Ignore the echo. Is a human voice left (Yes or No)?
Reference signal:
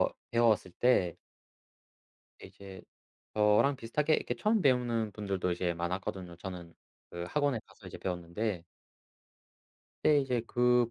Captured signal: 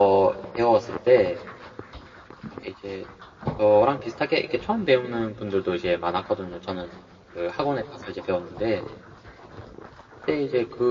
No